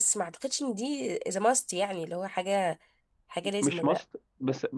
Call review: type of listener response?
taking over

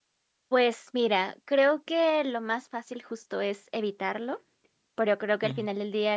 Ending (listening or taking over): listening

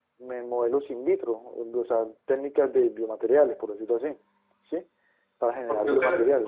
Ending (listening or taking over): taking over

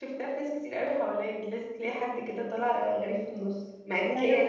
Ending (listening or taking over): listening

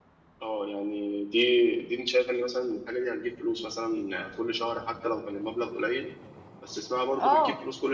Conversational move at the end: taking over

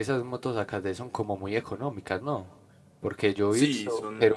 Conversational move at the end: taking over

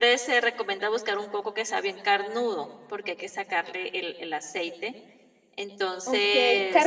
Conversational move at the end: taking over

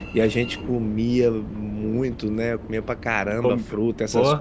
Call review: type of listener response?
listening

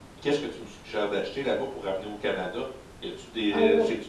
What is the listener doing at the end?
listening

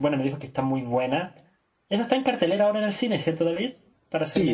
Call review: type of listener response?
taking over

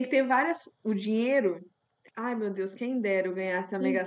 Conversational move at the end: taking over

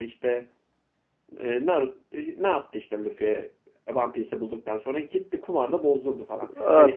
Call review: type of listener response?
taking over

